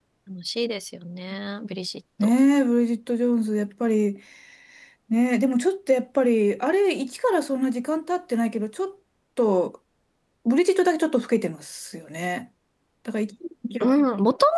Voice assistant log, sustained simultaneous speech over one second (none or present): none